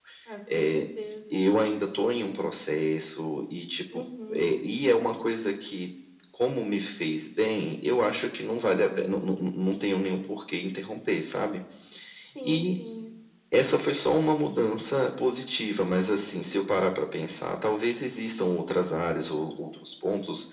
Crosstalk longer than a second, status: none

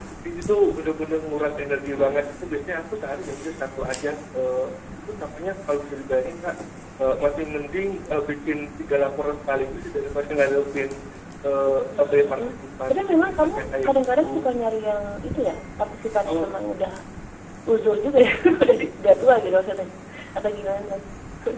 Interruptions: present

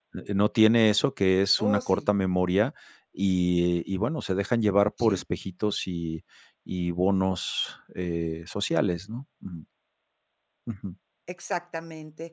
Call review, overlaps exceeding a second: none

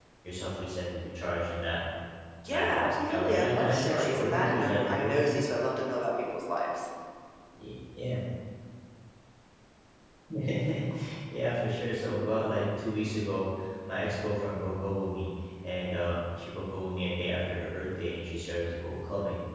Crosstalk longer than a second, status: present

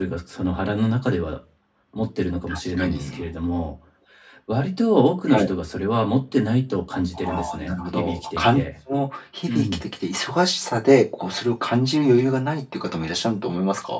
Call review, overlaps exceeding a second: present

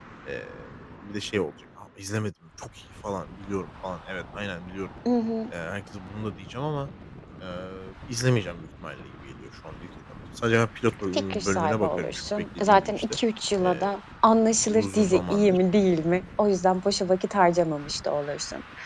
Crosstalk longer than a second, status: present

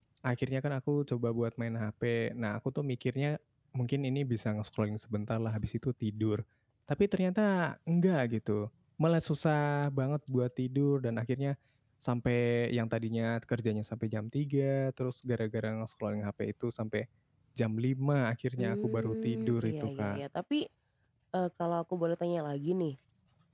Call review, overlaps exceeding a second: present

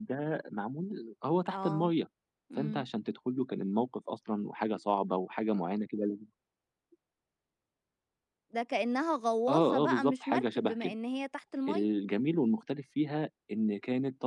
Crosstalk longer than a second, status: present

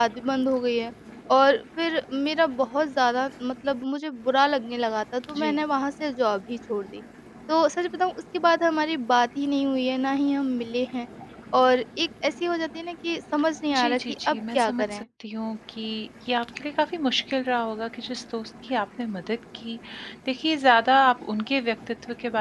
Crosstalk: present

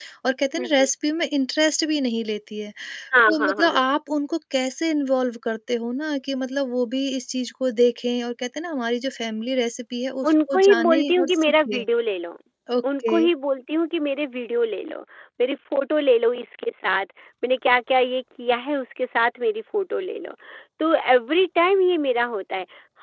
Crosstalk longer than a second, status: present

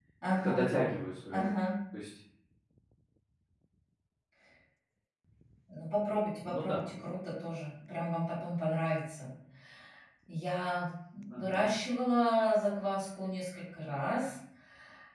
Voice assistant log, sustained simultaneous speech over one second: none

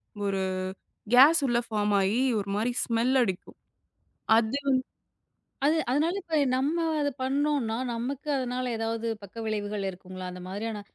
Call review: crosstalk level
none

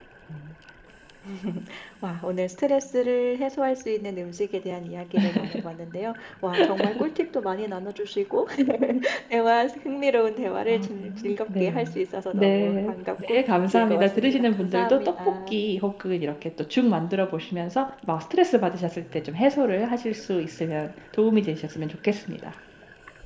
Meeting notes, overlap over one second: present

